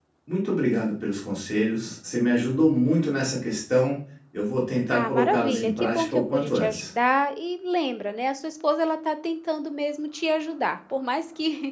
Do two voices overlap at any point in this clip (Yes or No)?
Yes